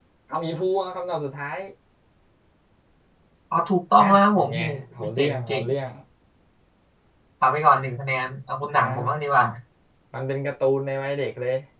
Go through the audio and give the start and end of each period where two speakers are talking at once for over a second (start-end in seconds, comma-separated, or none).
4.0-5.7